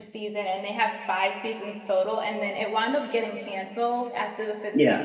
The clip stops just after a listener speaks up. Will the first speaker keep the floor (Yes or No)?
Yes